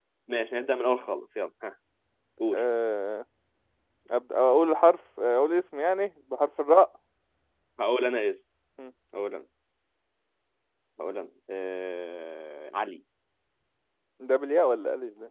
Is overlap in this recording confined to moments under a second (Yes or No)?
Yes